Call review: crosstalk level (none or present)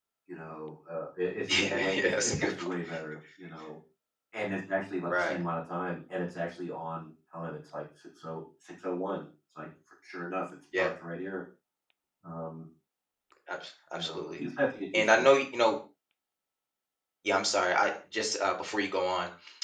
present